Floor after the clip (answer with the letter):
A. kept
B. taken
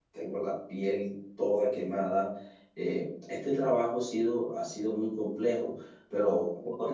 B